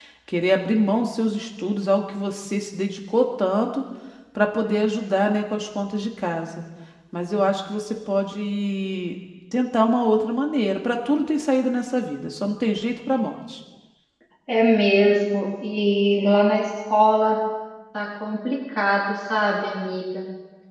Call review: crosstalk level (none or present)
none